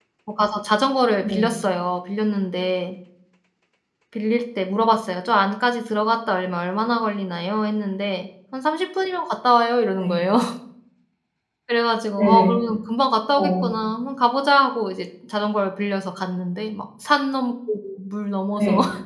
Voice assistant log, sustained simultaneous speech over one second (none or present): none